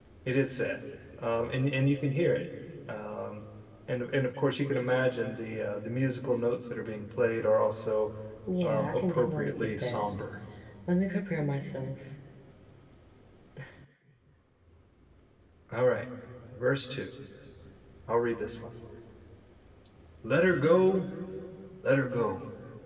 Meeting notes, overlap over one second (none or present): present